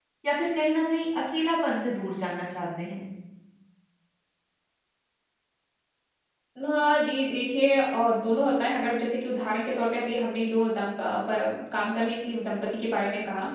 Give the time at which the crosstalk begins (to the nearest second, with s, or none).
none